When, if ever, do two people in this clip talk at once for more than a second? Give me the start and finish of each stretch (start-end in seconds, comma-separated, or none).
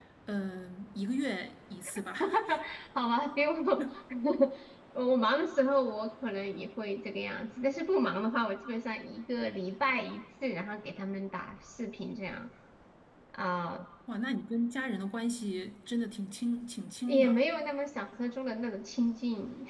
none